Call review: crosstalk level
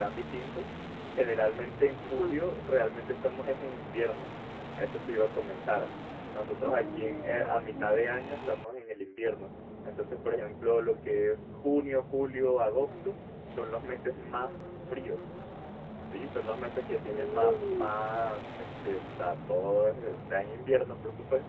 present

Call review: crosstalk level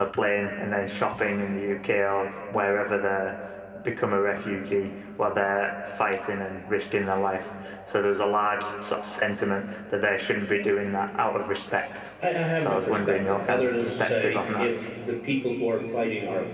present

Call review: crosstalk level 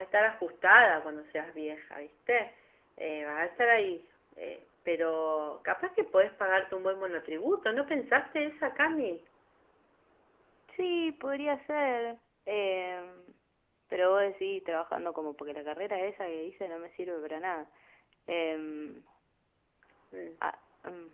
none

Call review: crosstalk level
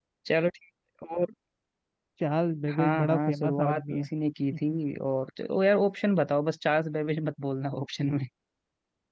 present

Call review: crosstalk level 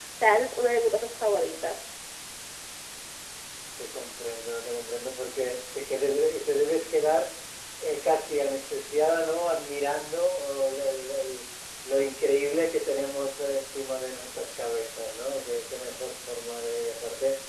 none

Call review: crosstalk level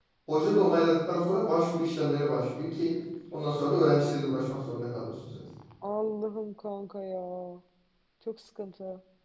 none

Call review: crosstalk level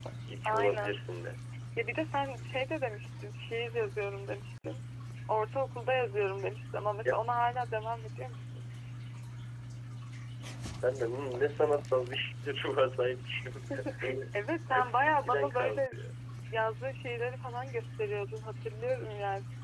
present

